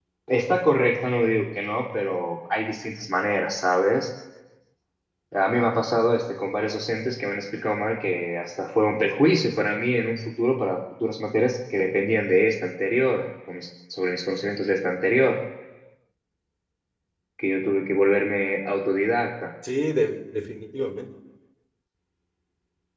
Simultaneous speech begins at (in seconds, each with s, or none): none